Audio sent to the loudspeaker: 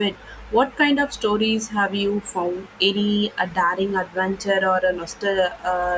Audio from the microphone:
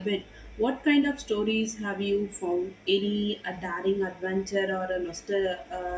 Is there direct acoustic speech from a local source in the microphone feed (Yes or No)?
No